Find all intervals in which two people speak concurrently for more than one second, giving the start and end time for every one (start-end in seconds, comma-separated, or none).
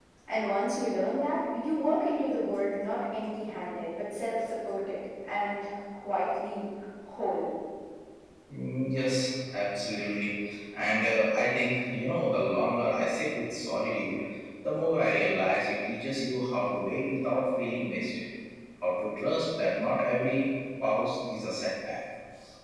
none